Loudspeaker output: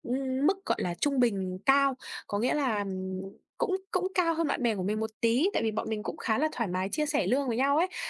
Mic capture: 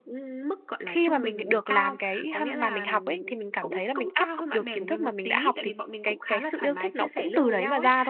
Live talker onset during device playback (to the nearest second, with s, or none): 1 s